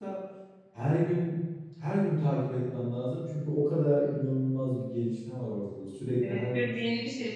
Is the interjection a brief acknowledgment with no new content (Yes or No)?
No